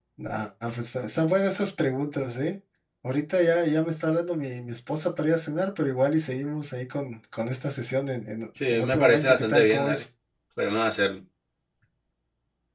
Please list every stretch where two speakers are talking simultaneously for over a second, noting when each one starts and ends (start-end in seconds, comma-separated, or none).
8.7-10.0